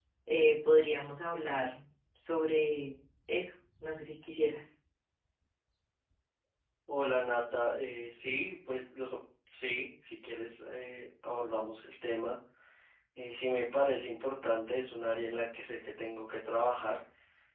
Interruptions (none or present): none